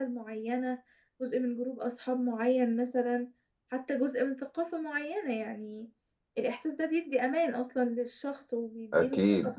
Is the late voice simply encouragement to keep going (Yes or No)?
No